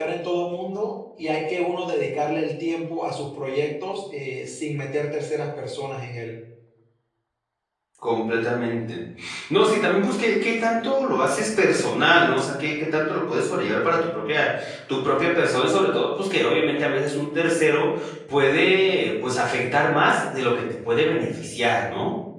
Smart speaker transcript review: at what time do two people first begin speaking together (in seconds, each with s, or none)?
none